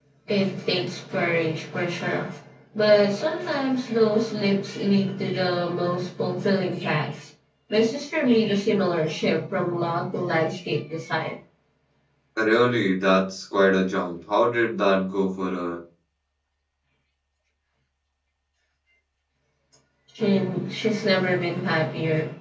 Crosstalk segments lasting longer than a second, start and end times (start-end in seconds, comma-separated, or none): none